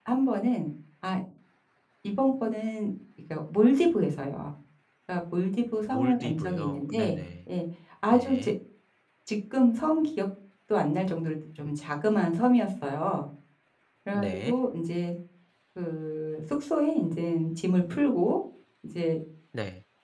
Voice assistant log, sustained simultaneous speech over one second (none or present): present